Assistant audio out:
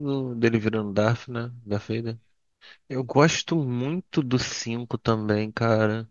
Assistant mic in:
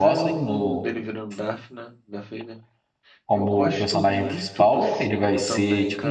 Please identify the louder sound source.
user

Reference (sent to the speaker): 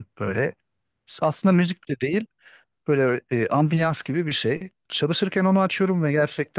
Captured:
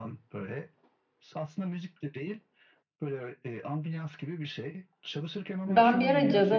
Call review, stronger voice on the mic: user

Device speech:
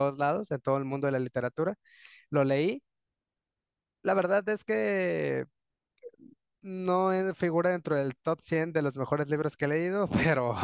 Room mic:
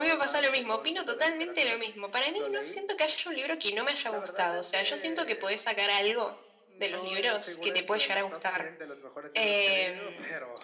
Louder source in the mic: user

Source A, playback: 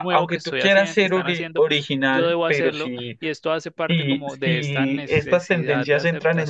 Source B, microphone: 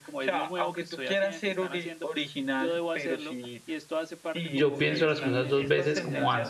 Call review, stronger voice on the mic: user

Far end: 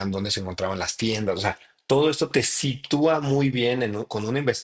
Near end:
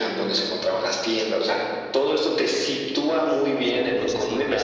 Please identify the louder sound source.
echo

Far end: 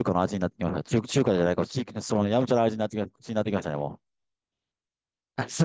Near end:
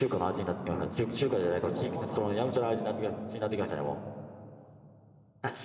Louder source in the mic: echo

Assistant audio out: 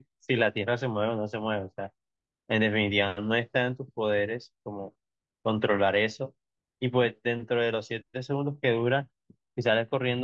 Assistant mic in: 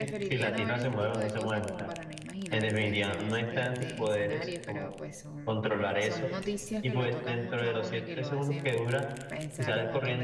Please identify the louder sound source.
echo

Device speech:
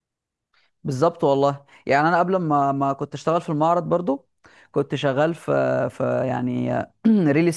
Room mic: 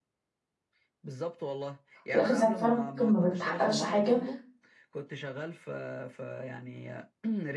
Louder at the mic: user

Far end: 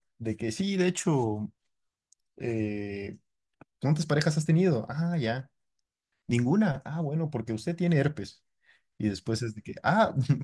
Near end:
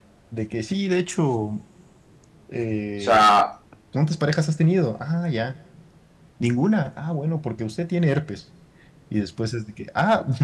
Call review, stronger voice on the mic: user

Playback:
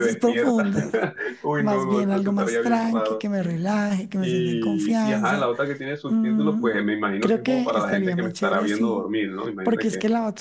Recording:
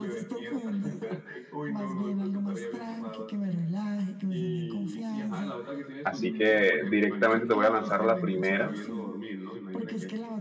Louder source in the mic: user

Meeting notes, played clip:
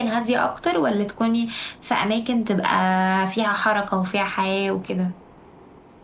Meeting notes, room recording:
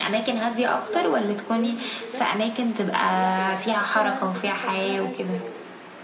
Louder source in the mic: echo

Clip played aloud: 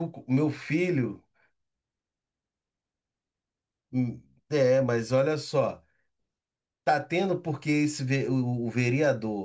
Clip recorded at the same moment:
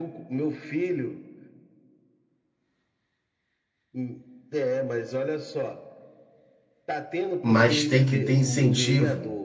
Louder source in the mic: user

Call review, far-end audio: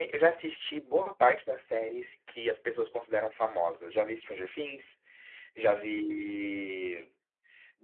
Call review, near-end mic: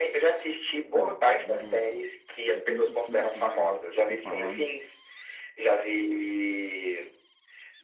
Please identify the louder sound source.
echo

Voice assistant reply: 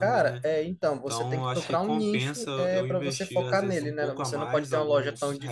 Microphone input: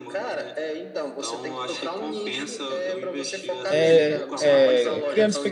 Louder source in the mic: user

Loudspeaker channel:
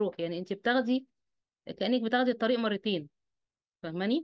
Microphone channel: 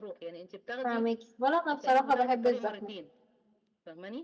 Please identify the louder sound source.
user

